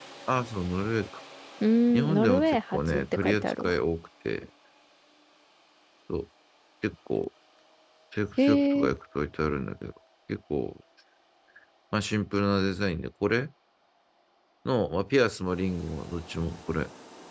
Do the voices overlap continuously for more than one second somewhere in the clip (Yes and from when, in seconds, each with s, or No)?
Yes, from 1.9 s